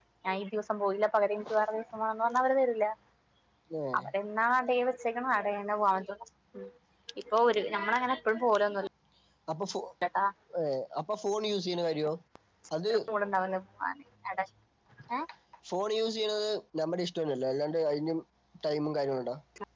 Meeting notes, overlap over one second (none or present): none